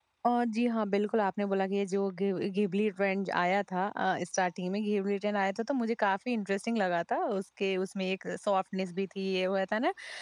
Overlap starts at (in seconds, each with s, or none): none